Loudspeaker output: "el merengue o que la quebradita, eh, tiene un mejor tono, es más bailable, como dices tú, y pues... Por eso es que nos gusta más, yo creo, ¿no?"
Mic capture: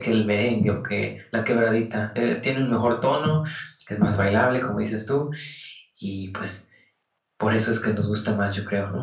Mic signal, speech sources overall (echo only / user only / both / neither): echo only